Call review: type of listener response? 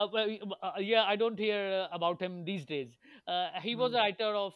listening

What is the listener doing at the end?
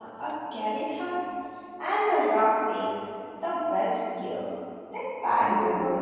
taking over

